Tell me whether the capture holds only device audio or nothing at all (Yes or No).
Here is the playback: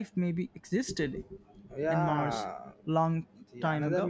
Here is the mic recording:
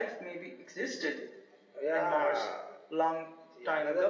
Yes